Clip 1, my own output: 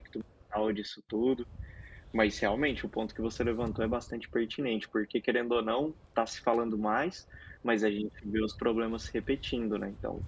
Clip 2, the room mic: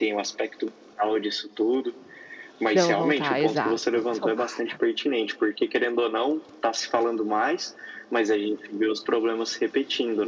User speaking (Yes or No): Yes